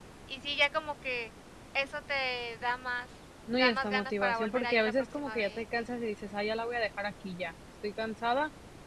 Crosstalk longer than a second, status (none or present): present